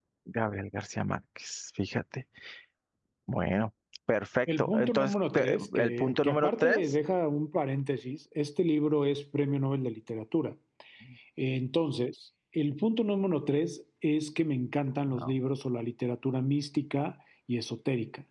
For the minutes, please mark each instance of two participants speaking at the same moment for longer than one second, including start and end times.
4.6-6.9

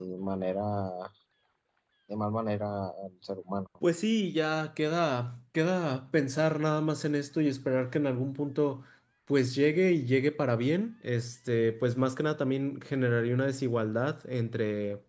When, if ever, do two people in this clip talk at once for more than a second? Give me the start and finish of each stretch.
none

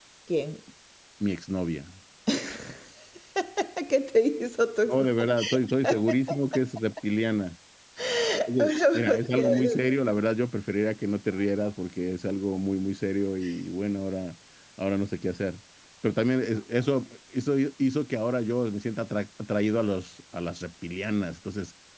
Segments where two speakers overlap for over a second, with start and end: 8.6-9.8

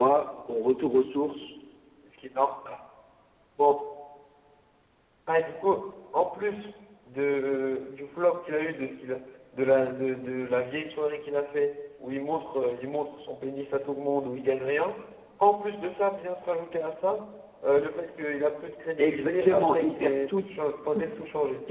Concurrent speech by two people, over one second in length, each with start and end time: 19.0-20.4

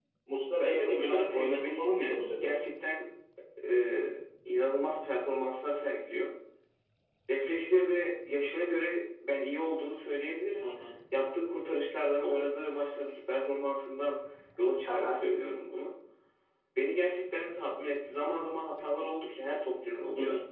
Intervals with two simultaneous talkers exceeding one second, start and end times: 0.6-2.5

